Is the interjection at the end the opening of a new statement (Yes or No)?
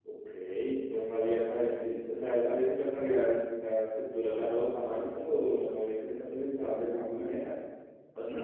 Yes